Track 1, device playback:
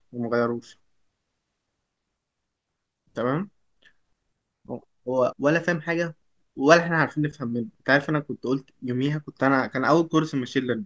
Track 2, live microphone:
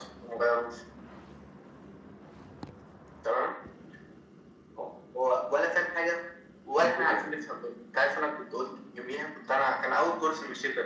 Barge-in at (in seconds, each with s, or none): 6.8 s